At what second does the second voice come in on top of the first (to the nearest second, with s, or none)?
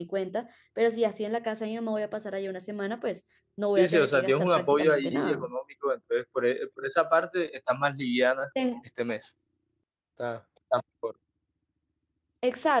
4 s